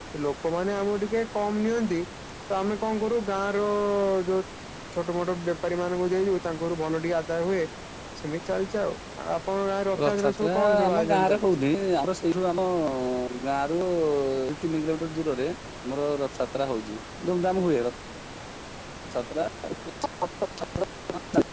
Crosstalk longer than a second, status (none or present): present